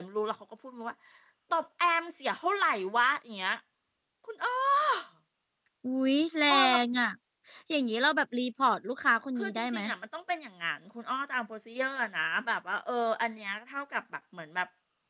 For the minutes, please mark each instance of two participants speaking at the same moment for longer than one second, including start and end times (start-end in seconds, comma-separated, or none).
none